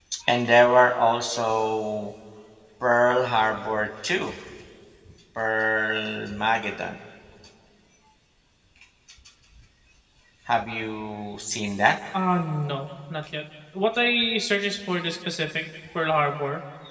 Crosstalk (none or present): none